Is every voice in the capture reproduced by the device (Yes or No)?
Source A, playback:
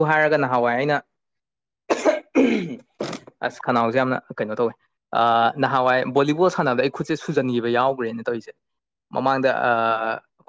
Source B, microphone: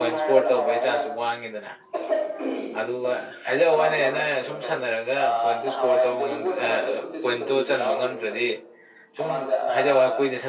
No